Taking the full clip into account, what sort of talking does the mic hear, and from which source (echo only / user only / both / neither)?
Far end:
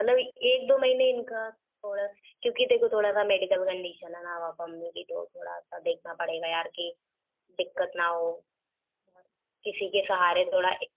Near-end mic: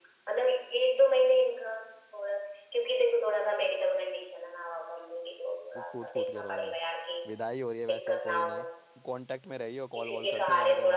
both